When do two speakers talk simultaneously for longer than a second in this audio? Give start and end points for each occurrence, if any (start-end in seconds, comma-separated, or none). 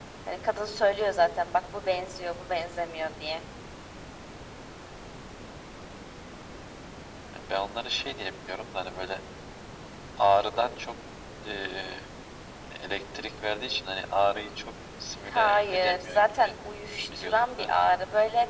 15.3-16.6